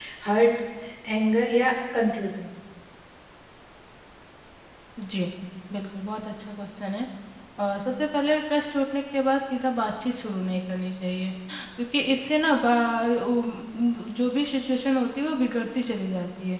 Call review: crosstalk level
none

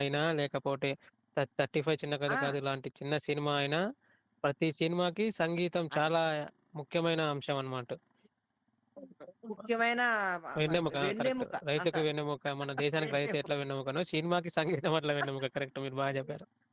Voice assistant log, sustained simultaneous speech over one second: present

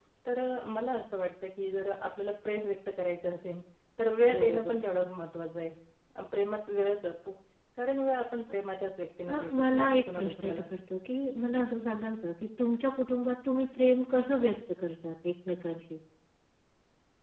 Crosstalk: present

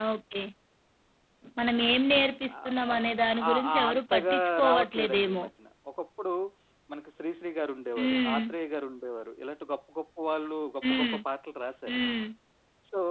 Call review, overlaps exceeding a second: present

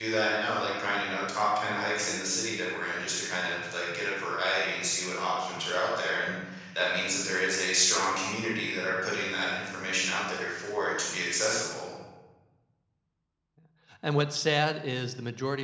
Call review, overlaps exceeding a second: none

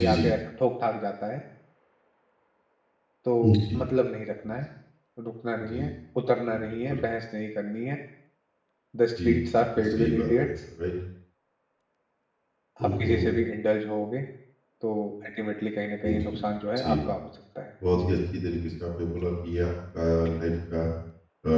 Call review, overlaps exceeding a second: present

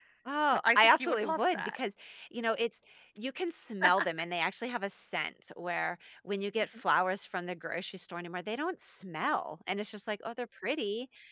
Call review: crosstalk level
present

